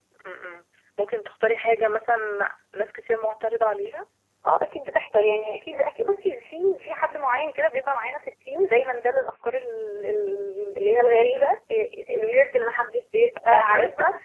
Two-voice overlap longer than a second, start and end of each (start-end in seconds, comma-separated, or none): none